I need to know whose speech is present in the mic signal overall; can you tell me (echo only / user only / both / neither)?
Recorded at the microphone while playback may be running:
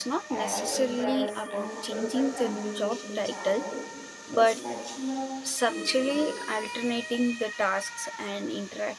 both